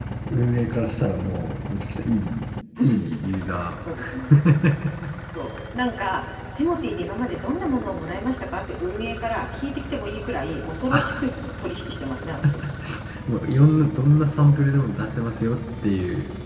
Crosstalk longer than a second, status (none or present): none